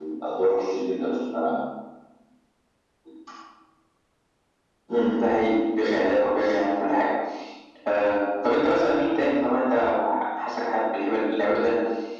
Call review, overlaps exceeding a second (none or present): none